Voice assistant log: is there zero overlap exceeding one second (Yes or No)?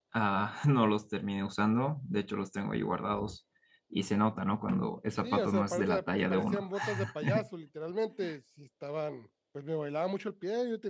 No